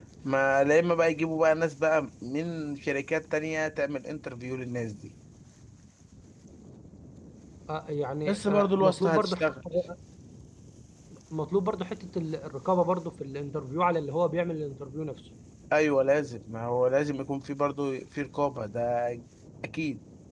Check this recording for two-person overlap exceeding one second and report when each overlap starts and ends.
8.2-9.5

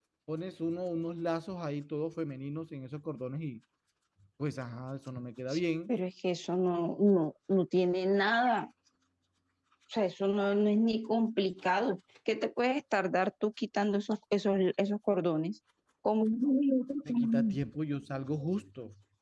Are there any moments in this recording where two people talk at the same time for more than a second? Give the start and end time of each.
none

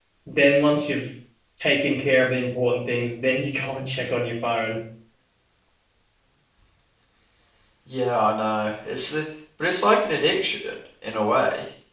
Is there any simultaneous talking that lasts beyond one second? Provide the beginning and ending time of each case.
none

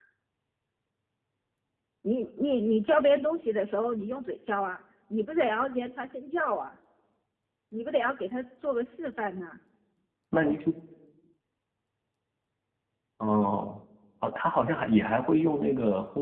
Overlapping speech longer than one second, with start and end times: none

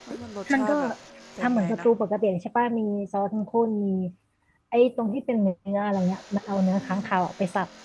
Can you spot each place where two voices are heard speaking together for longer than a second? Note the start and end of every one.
none

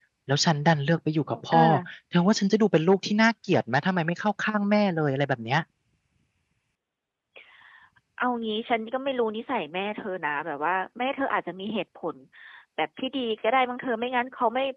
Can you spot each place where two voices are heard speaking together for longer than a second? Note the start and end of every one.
none

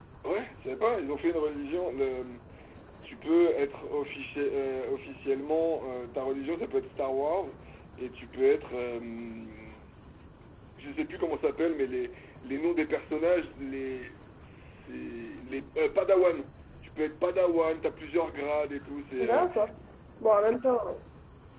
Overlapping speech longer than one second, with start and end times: none

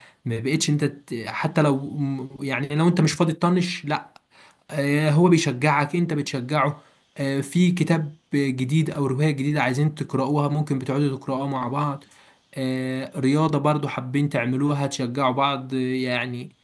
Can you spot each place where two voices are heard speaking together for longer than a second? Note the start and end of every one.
none

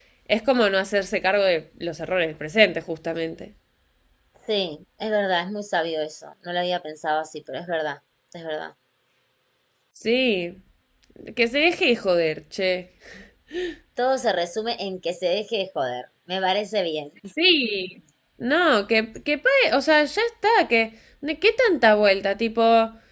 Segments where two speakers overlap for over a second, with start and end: none

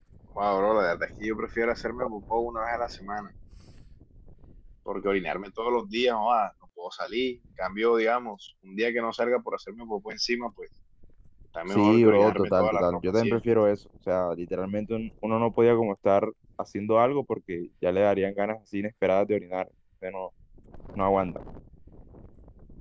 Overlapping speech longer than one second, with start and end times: 11.8-13.4

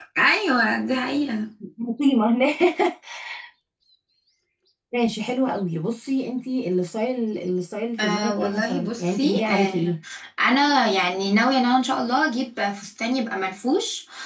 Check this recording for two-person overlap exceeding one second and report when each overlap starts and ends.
8.0-9.9

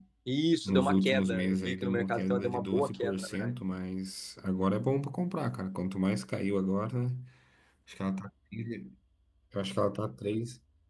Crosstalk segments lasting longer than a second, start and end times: 0.7-3.5

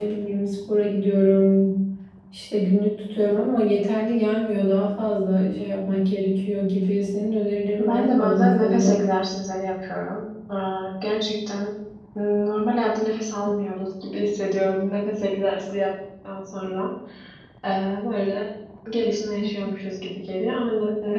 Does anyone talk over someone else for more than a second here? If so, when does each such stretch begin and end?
7.8-9.0

